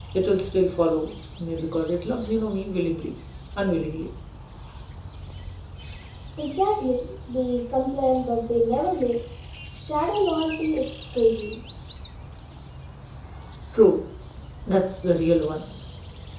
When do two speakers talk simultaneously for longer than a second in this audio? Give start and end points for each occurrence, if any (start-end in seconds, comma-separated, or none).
none